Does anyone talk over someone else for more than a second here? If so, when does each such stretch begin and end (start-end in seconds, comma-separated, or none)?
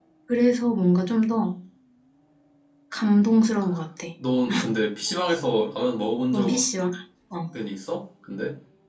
none